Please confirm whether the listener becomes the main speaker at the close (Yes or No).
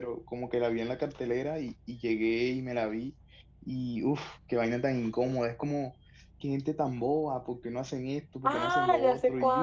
Yes